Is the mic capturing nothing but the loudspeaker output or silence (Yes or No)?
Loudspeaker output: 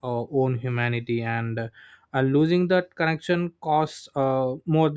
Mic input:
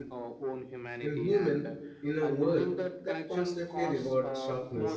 No